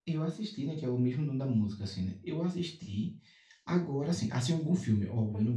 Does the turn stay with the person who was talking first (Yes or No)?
Yes